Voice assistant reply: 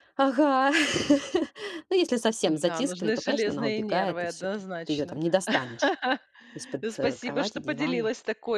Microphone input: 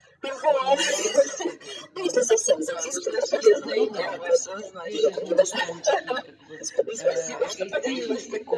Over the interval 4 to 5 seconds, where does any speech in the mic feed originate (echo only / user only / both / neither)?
both